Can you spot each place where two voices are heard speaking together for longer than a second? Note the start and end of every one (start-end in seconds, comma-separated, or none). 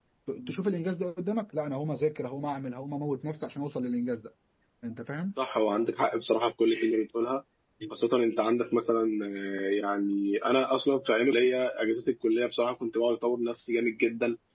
none